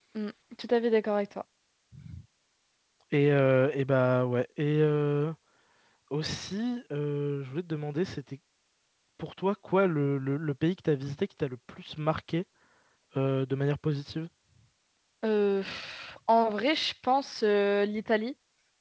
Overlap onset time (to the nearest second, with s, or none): none